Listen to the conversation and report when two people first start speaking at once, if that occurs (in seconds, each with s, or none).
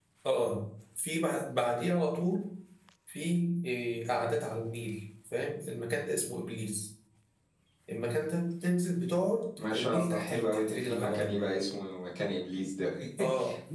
9.7 s